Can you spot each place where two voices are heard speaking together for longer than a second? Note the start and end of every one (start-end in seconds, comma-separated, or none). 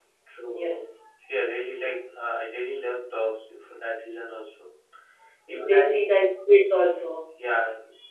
none